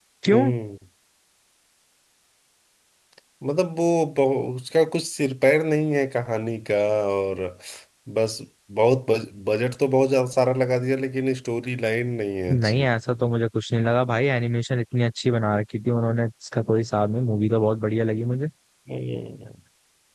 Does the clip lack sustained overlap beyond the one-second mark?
Yes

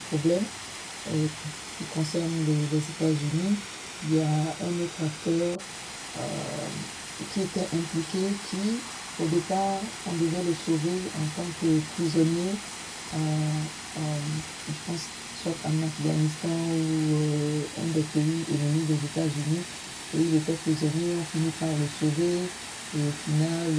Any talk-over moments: No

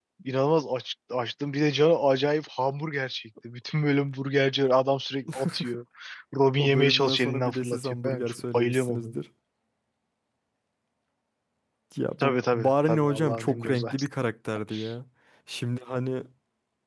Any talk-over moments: Yes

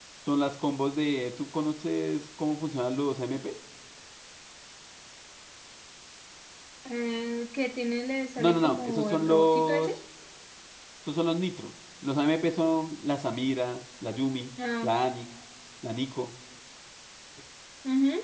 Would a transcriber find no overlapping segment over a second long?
No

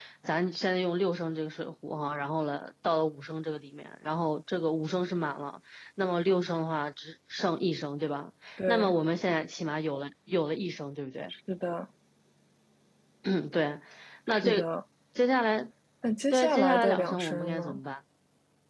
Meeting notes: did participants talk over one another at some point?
Yes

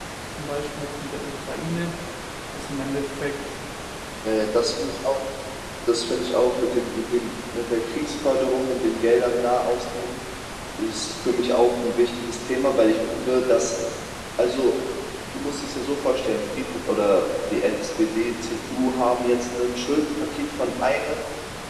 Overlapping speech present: No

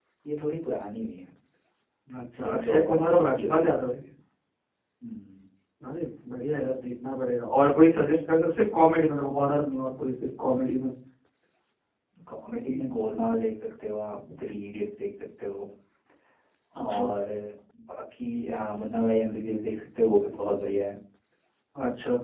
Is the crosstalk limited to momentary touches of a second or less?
No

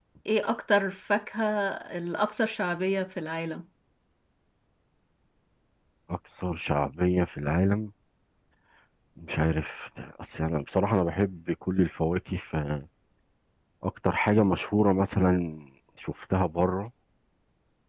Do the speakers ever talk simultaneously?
No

